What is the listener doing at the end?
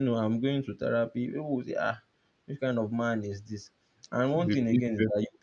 listening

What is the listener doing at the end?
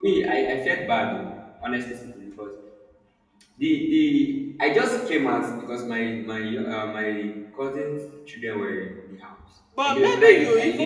taking over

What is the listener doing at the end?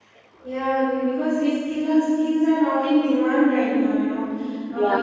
listening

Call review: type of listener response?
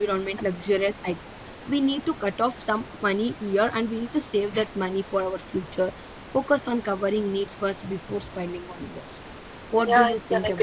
taking over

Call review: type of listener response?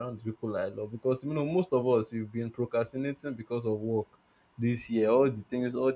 listening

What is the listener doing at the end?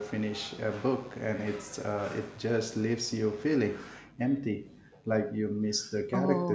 taking over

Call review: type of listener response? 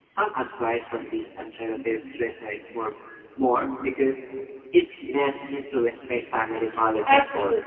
taking over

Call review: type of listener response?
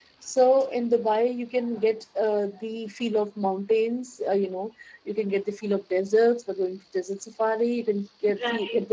listening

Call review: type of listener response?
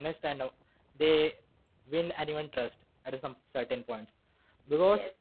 taking over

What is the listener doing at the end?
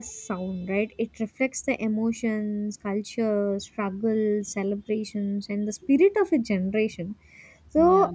listening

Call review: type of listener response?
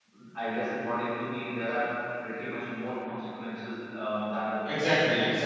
taking over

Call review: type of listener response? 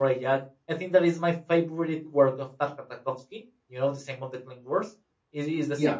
listening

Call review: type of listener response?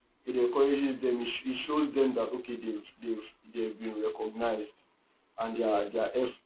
listening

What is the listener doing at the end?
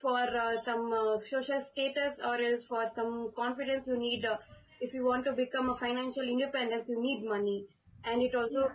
listening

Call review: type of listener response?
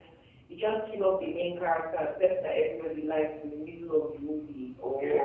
taking over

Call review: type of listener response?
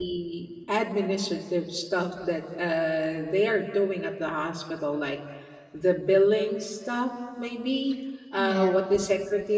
listening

